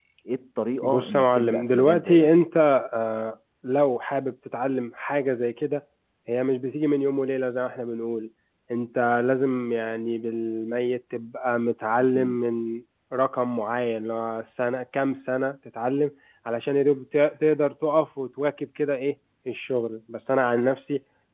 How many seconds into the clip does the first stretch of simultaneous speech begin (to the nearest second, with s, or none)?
1 s